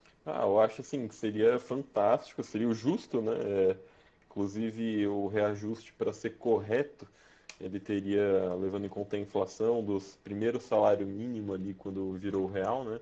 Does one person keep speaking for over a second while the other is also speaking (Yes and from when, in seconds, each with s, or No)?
No